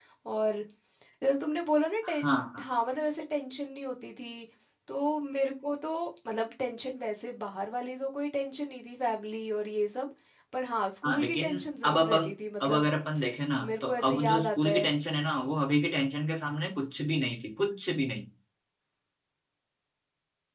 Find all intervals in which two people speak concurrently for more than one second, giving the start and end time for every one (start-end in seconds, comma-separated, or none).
11.0-12.2, 13.6-14.9